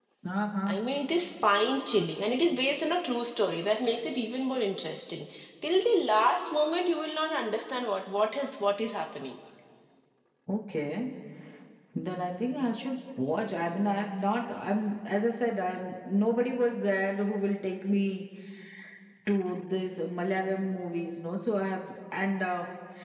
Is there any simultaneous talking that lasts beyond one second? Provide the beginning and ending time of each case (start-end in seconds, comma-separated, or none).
none